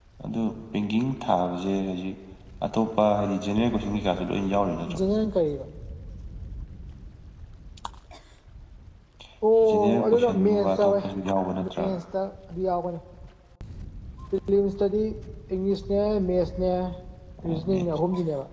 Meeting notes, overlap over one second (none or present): present